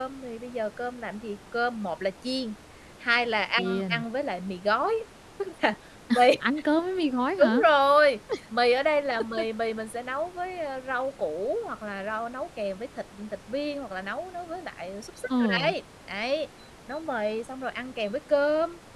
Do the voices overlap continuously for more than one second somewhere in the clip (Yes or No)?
No